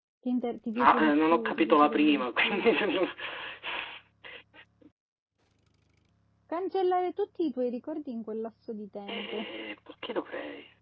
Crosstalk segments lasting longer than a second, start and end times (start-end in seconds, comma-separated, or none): 0.8-2.6